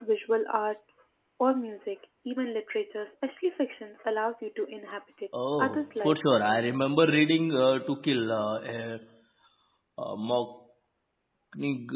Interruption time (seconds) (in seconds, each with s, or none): 5.6 s